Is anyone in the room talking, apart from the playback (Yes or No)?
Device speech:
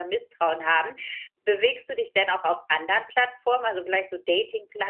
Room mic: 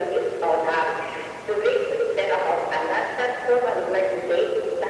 No